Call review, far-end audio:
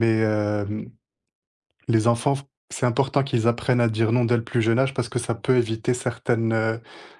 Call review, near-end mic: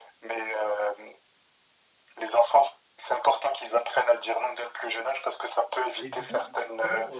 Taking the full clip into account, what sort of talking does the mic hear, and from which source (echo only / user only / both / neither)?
both